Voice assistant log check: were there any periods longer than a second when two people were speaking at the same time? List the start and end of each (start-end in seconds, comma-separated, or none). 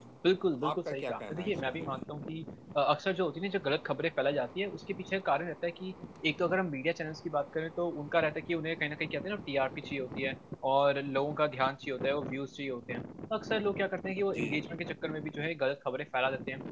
0.7-2.0